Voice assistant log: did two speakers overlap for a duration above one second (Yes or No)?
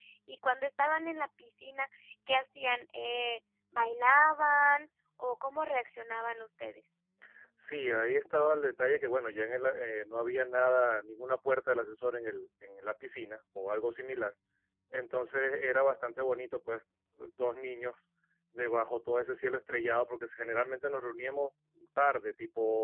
No